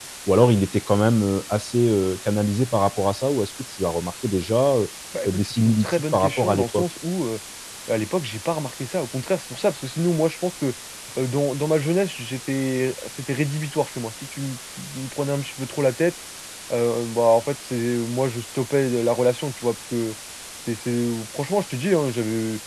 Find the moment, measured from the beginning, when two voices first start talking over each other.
5.3 s

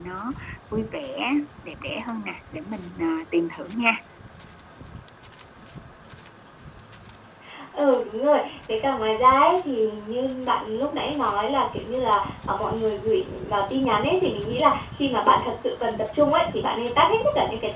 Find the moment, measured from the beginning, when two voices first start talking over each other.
none

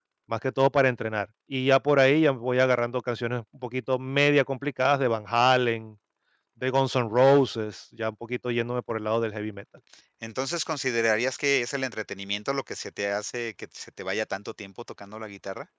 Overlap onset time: none

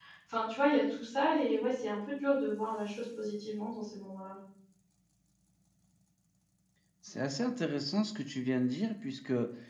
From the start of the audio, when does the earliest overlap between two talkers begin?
none

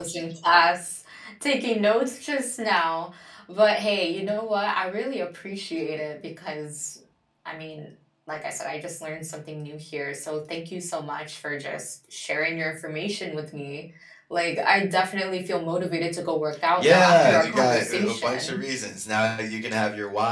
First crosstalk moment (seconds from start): 16.8 s

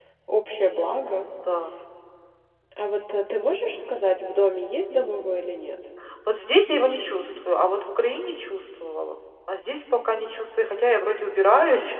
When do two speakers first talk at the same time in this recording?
none

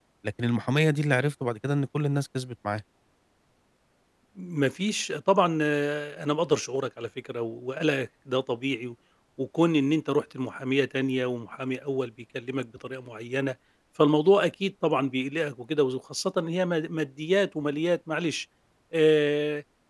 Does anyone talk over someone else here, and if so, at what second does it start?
none

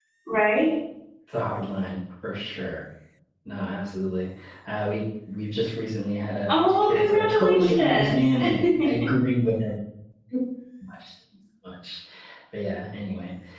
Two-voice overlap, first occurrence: 6.5 s

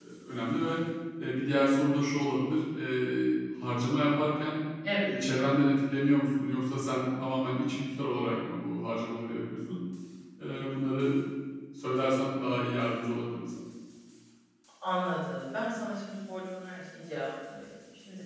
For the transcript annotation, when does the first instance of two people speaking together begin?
none

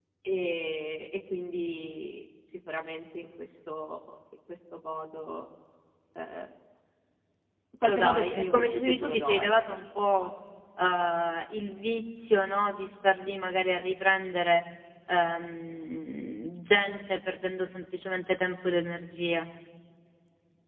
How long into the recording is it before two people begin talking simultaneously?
7.8 s

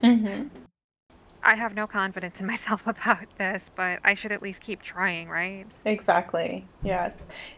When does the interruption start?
none

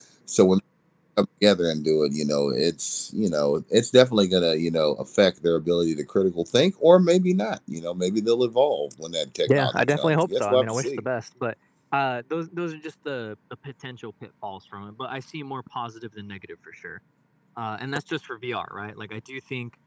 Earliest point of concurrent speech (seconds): 9.5 s

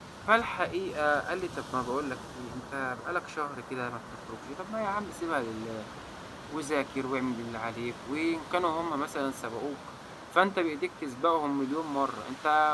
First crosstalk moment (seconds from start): none

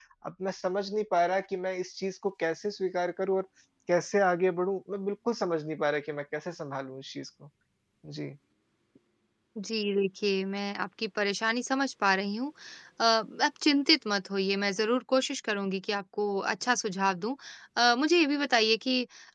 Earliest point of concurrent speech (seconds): none

